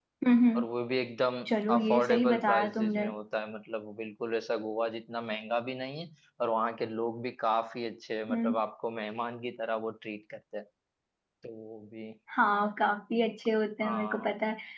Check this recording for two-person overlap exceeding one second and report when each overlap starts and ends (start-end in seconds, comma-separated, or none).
1.7-3.1